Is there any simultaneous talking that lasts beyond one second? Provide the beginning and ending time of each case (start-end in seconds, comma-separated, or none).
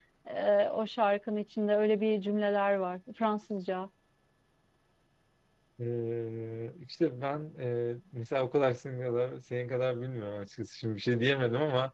none